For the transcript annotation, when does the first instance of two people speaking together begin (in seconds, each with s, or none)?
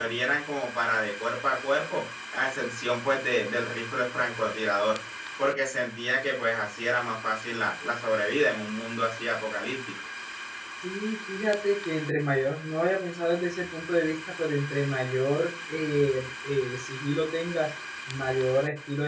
none